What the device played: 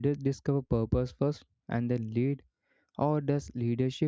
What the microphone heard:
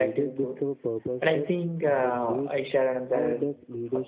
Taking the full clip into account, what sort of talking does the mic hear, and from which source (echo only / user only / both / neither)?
both